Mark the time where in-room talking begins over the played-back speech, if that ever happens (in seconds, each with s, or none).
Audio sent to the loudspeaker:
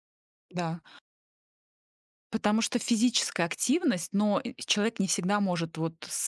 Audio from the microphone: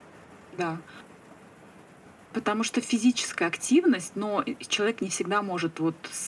none